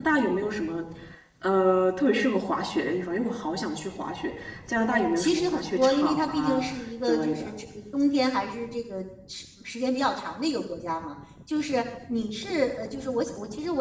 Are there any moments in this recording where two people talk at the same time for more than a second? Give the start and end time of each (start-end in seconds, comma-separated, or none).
4.9-6.6